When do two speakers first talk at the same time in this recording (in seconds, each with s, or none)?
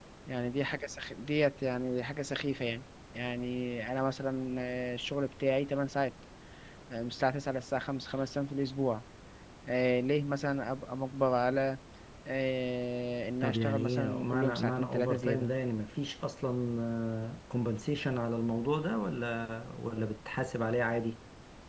13.4 s